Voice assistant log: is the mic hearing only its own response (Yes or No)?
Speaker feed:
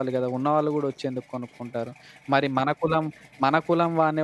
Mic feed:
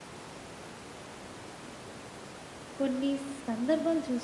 No